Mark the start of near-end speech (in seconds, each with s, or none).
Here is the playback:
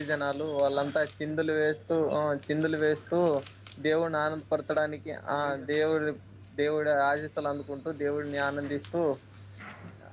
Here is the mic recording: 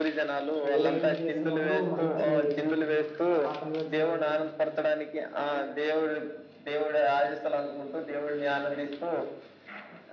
0.7 s